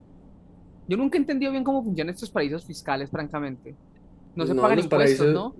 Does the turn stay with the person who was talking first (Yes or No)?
No